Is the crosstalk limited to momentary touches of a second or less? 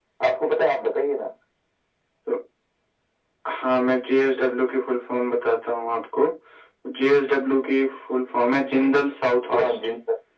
Yes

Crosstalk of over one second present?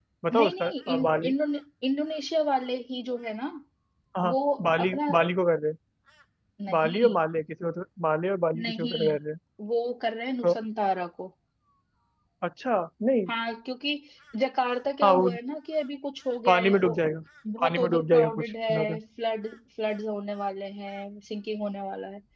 Yes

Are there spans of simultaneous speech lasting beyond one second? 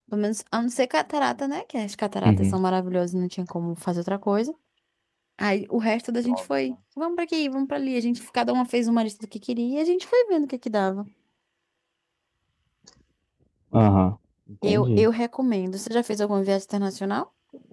No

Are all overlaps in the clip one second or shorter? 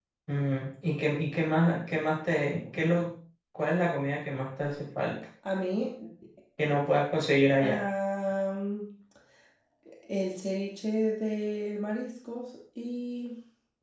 Yes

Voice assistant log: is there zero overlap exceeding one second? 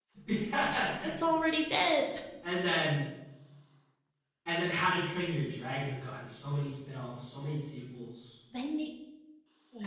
Yes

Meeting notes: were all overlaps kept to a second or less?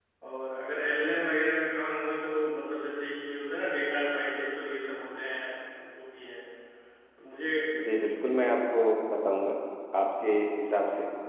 Yes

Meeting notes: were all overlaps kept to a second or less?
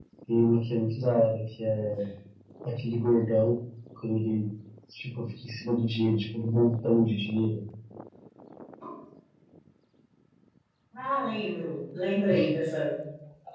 Yes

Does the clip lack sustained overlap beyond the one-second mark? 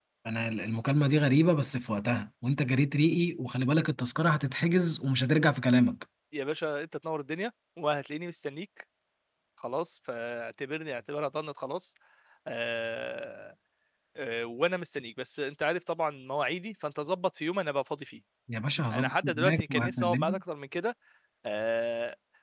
No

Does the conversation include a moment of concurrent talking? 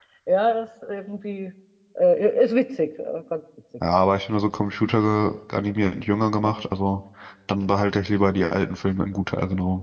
No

